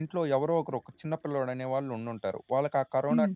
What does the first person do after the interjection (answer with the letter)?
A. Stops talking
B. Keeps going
B